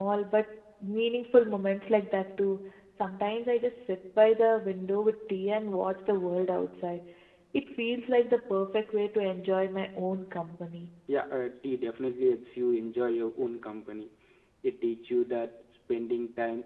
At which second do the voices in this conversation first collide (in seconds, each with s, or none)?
none